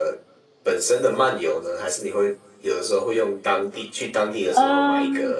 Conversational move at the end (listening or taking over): taking over